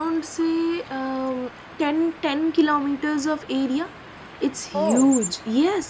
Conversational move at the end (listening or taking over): listening